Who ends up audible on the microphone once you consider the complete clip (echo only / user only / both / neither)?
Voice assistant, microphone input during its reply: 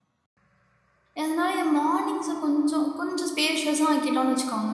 user only